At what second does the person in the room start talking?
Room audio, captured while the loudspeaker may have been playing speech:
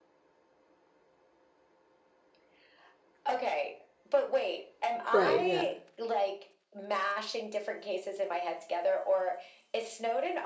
5.1 s

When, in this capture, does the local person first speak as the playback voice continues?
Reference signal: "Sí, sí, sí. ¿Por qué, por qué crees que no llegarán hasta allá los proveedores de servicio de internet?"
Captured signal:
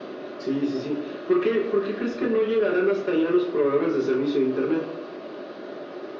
none

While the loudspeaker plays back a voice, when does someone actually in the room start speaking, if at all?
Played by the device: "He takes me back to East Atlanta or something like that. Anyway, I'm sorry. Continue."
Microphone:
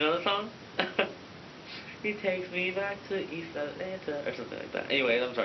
none

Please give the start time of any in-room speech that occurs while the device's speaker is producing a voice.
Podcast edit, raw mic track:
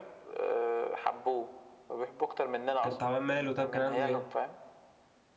2.8 s

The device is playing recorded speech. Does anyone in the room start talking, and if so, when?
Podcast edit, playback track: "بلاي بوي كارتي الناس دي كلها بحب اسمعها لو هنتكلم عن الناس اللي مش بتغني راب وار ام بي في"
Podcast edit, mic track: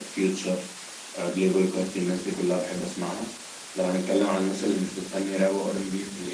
none

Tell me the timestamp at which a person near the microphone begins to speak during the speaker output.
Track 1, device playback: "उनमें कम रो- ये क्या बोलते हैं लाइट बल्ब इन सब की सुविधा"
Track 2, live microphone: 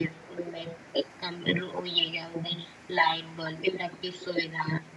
none

